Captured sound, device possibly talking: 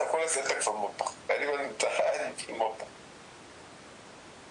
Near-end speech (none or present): none